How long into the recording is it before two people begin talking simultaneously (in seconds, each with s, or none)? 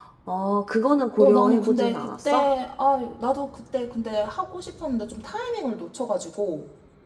1.2 s